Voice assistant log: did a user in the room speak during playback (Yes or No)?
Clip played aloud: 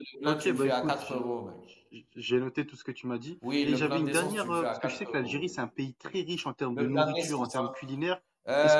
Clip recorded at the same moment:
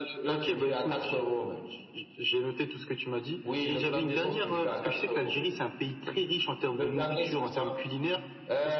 No